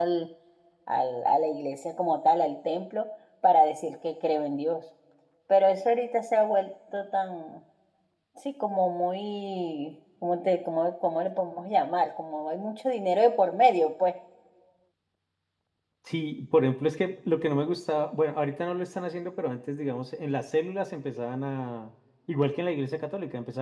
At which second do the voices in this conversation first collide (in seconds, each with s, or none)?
none